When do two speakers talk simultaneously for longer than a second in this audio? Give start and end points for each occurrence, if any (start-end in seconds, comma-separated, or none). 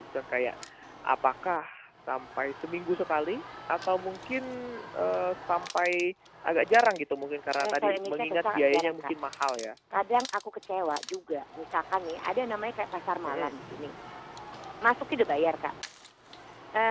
7.6-9.1